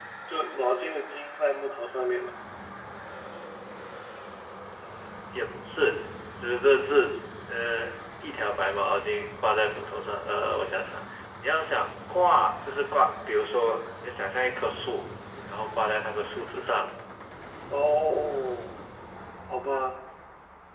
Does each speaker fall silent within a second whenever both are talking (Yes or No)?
Yes